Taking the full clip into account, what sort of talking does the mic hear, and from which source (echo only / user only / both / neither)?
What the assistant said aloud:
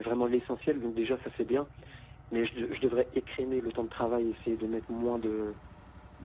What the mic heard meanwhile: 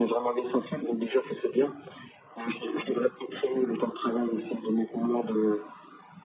echo only